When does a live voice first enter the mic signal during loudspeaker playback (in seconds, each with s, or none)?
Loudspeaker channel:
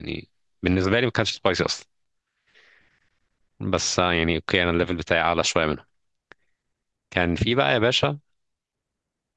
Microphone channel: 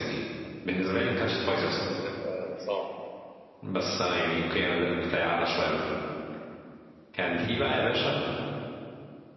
1.6 s